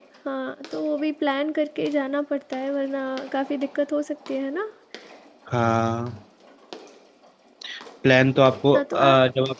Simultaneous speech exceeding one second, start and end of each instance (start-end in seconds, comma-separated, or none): none